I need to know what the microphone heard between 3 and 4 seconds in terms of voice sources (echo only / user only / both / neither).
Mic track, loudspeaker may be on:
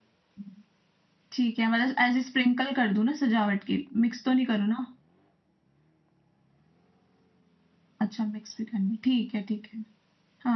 user only